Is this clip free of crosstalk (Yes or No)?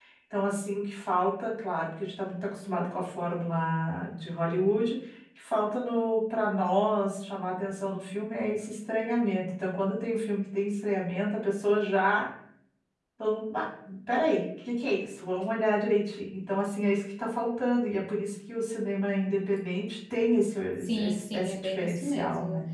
No